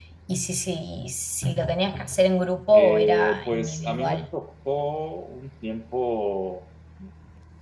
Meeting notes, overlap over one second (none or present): present